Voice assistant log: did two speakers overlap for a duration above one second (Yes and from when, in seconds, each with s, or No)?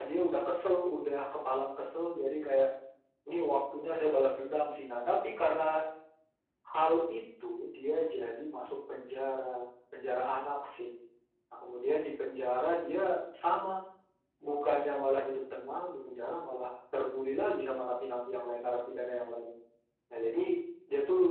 No